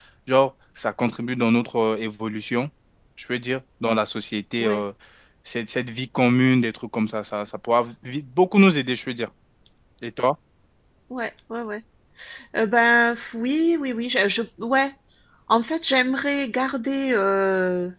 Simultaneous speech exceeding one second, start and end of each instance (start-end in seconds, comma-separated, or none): none